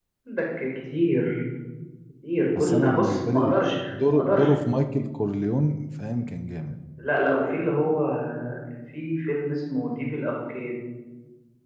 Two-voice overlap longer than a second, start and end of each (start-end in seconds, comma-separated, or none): 2.6-4.5